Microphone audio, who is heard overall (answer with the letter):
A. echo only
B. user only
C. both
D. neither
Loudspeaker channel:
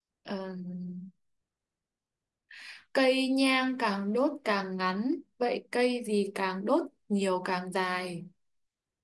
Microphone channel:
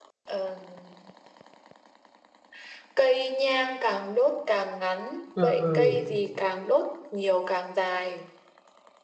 C